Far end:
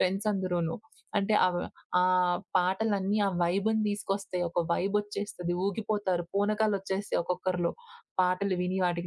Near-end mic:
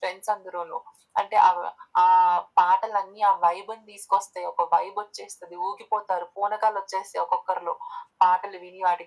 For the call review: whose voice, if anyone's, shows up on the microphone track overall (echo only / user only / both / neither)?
echo only